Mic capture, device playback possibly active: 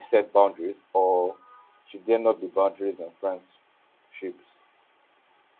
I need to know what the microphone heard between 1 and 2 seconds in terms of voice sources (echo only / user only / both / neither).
user only